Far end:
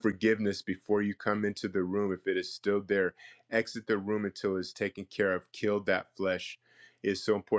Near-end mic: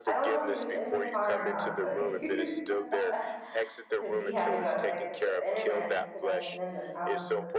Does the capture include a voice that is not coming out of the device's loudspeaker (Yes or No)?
Yes